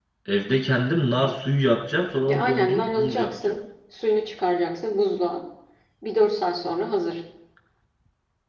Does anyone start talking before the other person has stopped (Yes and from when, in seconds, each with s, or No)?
Yes, from 2.3 s